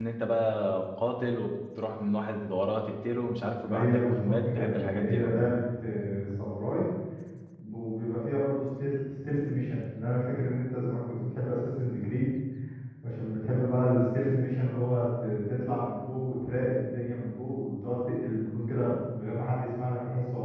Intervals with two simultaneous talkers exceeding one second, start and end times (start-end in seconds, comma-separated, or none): 3.6-5.5